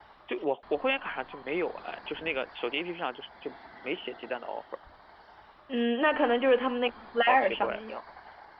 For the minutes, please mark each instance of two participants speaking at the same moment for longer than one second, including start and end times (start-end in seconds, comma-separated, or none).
none